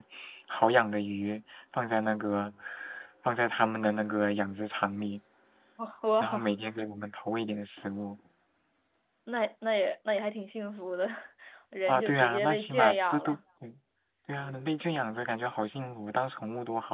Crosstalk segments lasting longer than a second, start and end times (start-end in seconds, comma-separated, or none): 11.9-13.4